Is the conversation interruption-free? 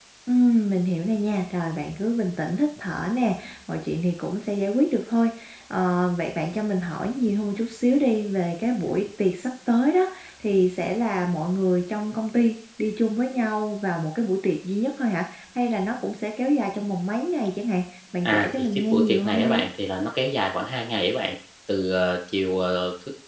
No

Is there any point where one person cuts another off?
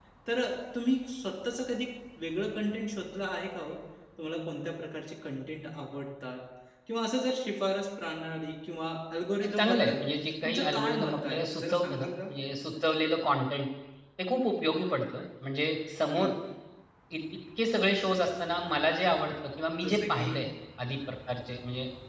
Yes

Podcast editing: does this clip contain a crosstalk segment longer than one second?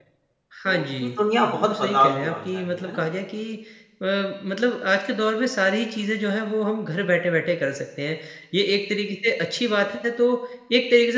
Yes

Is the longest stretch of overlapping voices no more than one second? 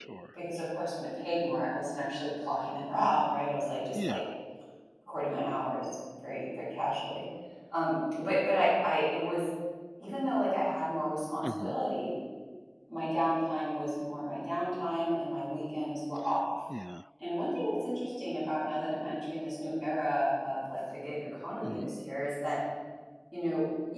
Yes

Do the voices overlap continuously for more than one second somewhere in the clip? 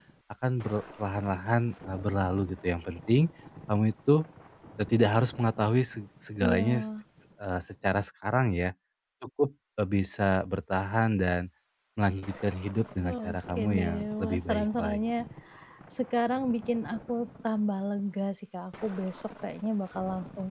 Yes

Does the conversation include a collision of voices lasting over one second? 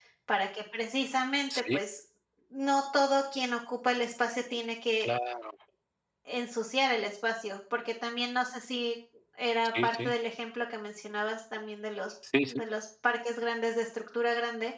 No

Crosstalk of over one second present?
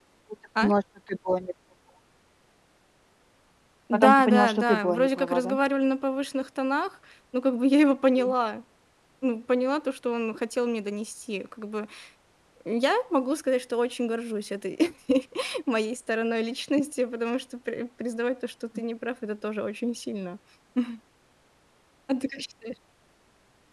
Yes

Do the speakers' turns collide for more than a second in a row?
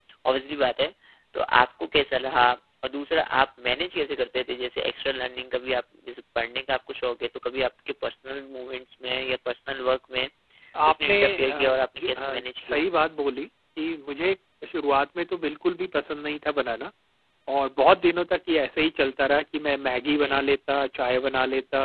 Yes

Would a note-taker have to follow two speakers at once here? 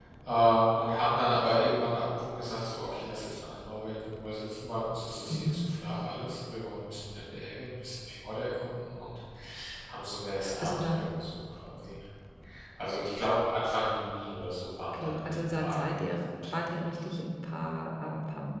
Yes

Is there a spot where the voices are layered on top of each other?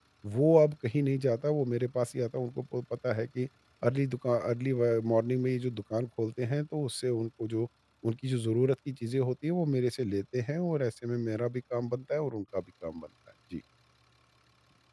No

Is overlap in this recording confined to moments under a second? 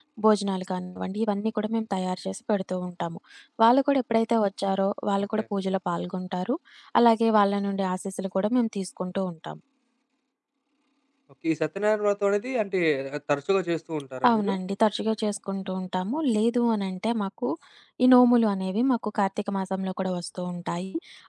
Yes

